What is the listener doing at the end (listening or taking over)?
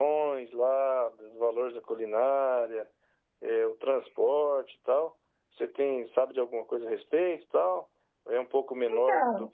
listening